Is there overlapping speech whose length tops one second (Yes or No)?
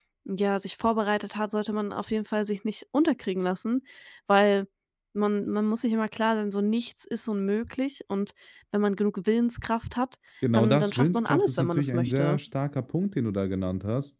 Yes